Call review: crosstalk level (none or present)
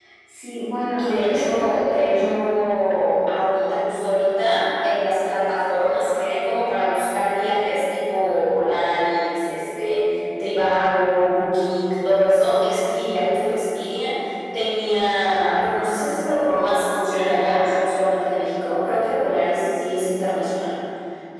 present